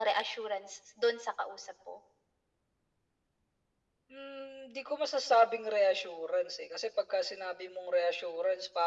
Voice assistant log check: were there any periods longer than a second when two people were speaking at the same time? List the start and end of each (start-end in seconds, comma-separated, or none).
none